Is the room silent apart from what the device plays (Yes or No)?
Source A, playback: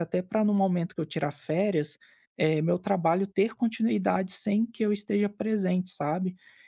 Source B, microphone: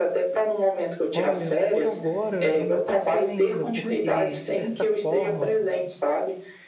No